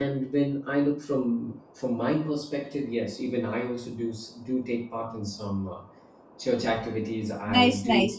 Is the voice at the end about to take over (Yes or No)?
Yes